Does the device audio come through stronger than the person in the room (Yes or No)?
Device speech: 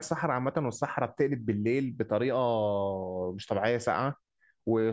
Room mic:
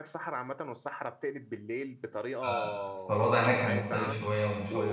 No